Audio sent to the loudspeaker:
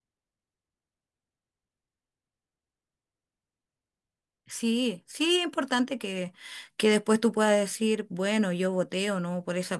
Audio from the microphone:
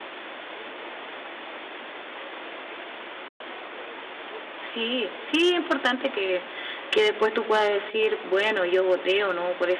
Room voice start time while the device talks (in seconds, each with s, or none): none